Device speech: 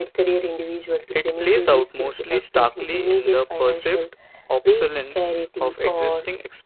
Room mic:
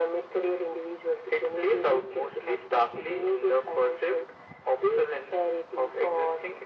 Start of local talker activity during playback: none

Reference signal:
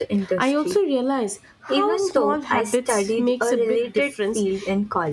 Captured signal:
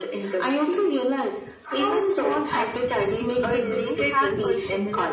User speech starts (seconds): 3 s

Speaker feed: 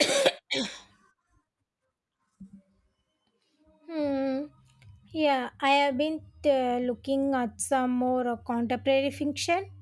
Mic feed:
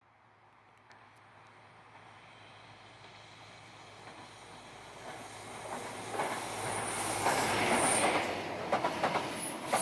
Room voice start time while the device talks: none

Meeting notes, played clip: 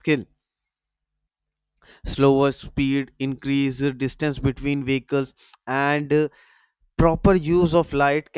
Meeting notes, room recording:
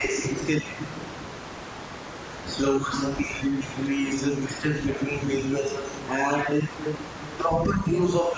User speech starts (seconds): none

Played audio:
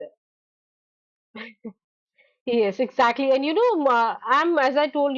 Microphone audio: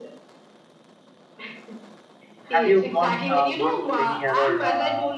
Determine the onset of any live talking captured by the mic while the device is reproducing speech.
3 s

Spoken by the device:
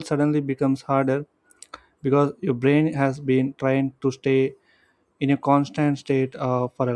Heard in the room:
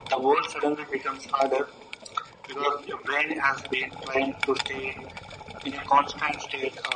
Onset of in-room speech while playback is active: none

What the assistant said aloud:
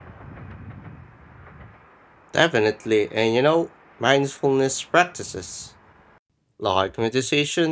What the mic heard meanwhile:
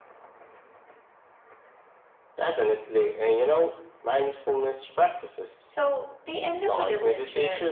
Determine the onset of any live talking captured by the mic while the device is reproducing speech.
6 s

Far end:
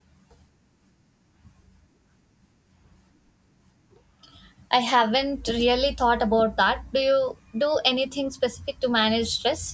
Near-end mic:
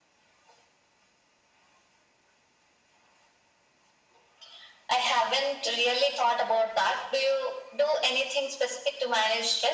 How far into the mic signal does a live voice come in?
none

